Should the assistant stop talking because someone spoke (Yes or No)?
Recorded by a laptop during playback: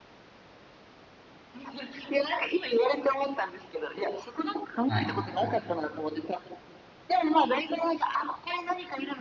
Yes